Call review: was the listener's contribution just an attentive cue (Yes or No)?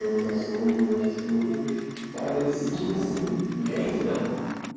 No